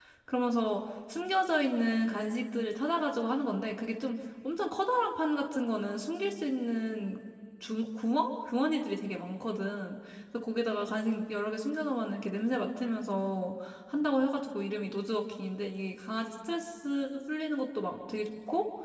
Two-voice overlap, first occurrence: none

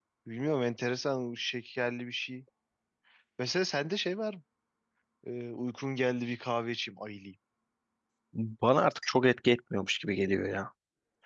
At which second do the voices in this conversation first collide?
none

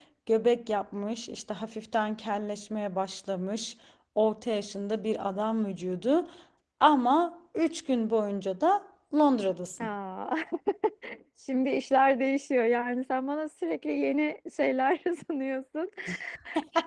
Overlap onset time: none

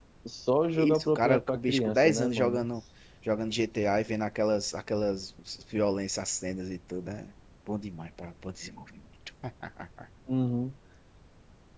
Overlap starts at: 0.8 s

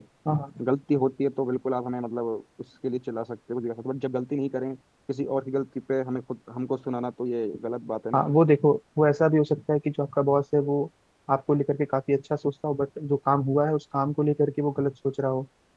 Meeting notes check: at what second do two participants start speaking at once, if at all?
none

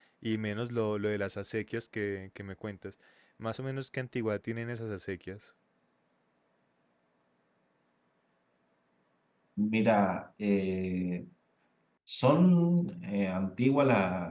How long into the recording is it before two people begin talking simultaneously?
none

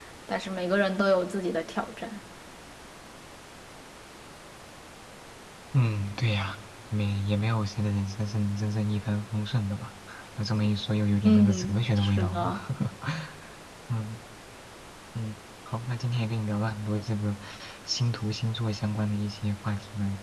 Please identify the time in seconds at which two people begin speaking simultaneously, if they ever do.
11.2 s

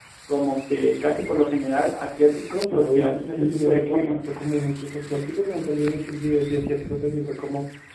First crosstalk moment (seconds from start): 2.7 s

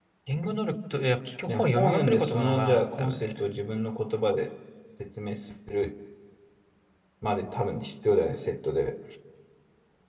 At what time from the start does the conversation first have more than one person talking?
1.5 s

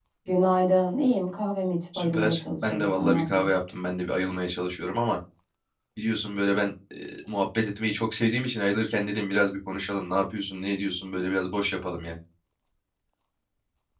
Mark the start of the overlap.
1.9 s

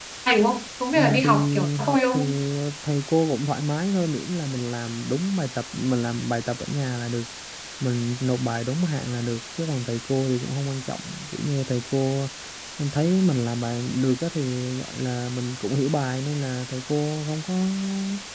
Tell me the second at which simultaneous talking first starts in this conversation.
0.9 s

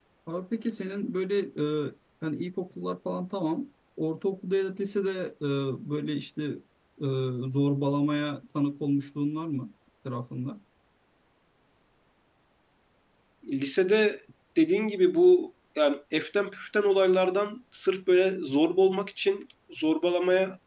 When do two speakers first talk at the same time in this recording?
none

